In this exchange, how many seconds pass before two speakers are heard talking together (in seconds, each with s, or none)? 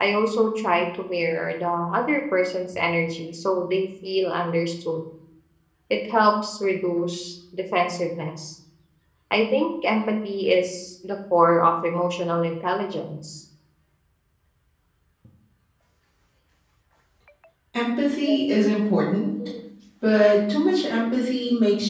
none